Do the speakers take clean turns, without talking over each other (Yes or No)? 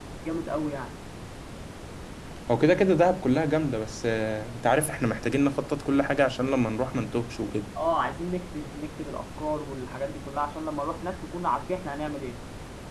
Yes